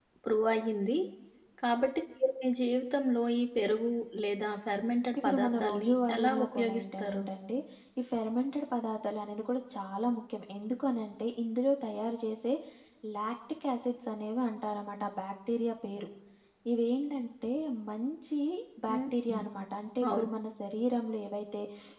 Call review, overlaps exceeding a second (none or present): present